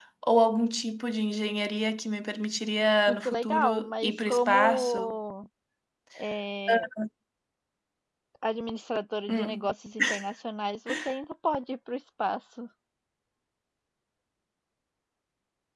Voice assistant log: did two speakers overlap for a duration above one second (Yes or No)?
Yes